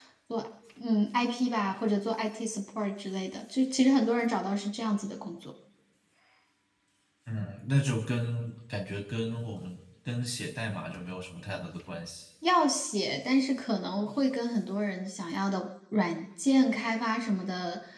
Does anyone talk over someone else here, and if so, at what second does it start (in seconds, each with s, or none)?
none